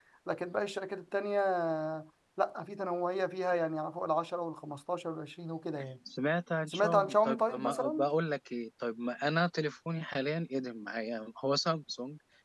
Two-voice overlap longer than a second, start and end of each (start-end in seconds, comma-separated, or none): 6.7-8.1